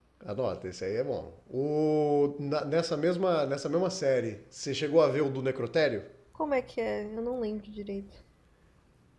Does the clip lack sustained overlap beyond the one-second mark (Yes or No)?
Yes